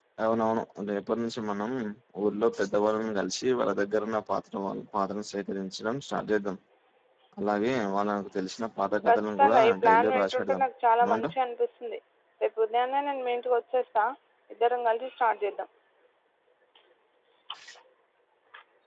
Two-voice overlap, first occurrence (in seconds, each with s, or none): 9.1 s